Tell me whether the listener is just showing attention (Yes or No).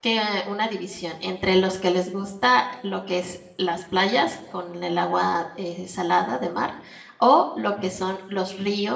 Yes